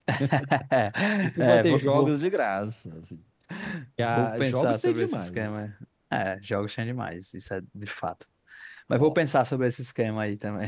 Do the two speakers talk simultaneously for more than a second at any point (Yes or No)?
Yes